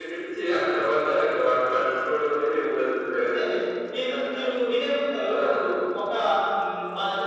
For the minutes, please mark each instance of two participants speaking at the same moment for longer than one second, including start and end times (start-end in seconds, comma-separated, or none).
none